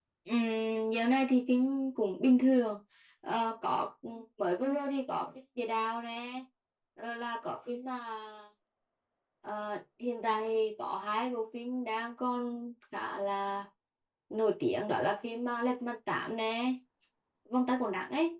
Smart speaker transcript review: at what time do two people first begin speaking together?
none

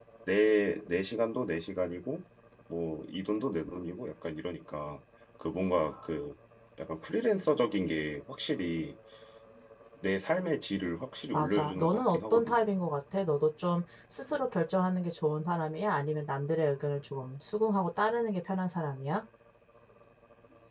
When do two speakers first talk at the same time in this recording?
11.3 s

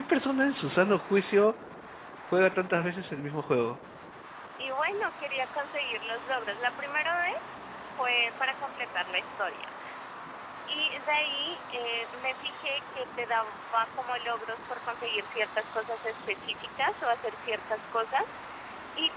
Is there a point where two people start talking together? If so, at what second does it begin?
none

